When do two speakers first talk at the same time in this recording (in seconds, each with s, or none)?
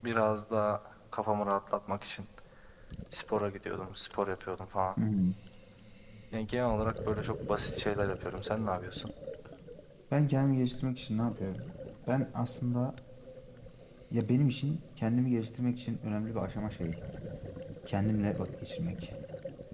none